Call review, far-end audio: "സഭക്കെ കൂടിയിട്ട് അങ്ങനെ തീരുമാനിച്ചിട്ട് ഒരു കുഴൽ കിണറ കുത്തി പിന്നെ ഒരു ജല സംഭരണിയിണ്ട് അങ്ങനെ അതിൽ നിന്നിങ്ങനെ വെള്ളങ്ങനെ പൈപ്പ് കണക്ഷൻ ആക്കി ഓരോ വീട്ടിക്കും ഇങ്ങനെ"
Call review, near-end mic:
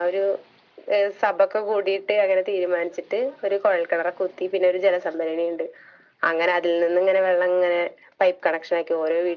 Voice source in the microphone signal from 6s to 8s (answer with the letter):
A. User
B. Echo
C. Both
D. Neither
B